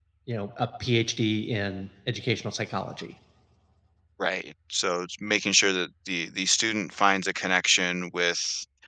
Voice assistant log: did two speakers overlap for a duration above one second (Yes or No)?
No